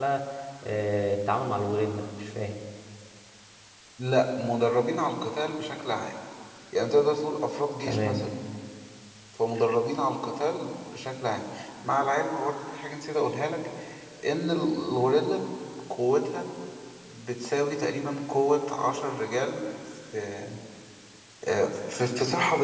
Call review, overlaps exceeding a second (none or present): none